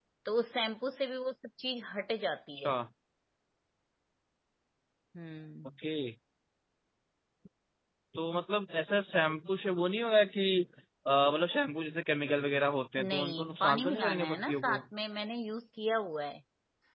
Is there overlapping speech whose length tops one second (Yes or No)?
Yes